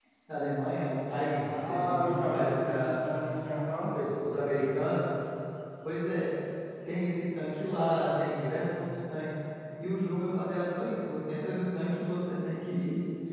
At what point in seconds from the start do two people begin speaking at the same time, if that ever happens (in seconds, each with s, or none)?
1.4 s